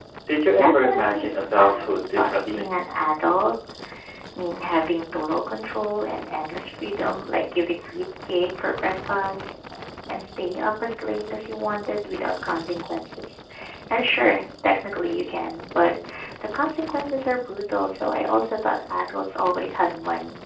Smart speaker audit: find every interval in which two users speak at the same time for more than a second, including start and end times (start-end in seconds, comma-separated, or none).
0.6-2.7